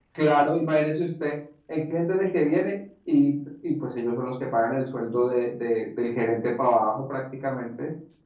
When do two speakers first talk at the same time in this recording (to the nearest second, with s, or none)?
none